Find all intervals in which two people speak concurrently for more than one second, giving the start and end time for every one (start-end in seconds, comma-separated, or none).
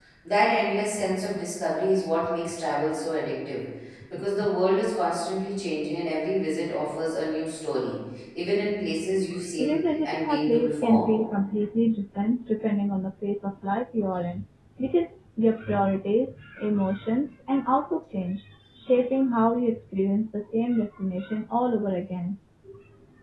9.6-11.1